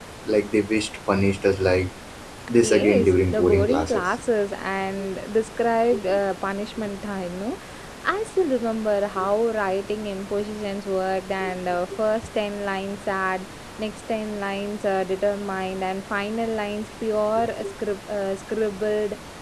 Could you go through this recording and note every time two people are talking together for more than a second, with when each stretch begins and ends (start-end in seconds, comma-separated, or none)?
2.6-4.0